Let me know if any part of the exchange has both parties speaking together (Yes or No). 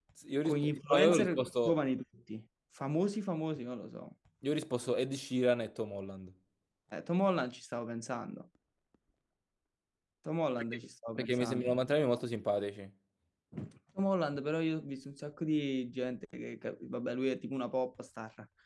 Yes